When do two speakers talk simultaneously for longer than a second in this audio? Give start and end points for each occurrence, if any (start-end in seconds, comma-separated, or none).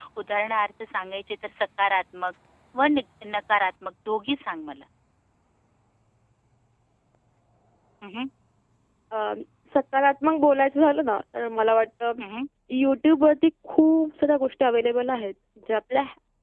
none